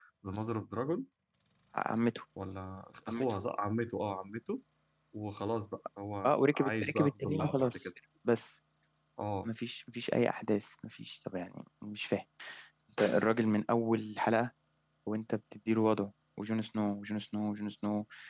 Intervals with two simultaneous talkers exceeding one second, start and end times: 6.2-7.7

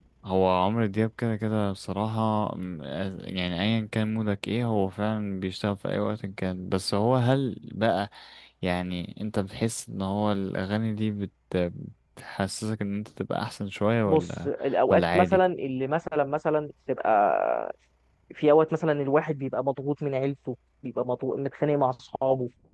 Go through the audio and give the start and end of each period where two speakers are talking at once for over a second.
none

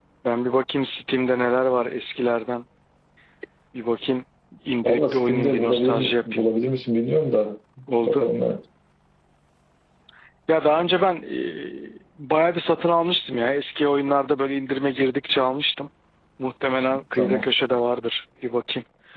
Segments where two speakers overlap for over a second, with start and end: 4.8-6.4

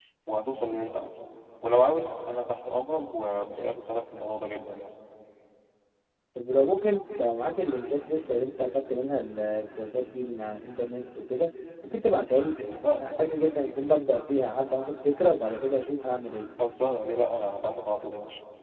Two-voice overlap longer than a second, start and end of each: none

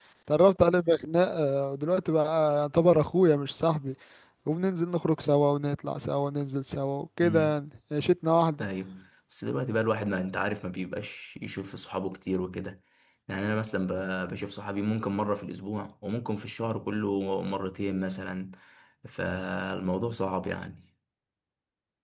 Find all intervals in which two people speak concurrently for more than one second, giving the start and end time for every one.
none

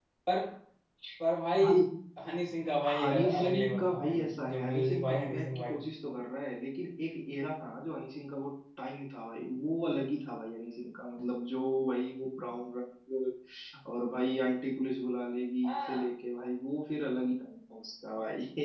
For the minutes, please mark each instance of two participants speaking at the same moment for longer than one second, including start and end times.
3.0-5.7

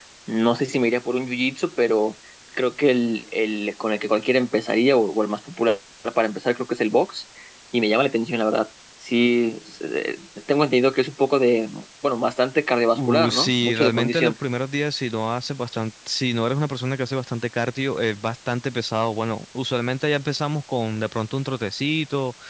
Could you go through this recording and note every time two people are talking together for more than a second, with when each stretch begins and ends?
13.0-14.3

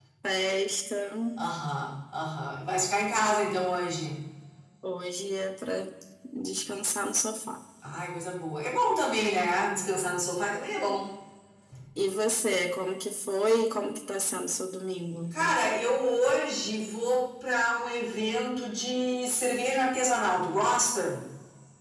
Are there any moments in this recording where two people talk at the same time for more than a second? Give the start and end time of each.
none

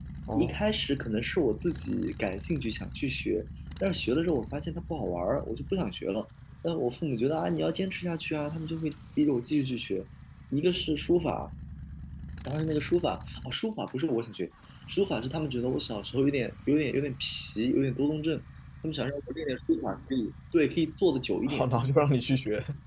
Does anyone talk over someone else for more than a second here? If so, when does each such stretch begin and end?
none

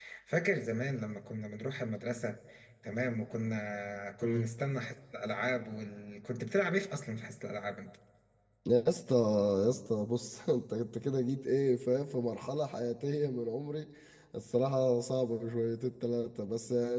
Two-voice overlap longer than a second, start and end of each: none

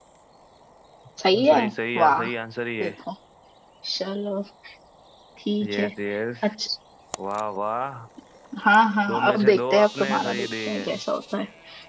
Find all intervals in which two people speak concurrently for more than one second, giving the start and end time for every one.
9.1-11.0

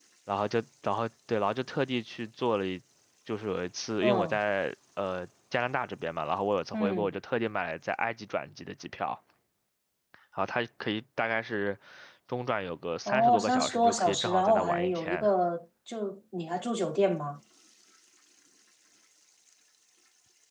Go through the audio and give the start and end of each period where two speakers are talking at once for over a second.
13.1-15.3

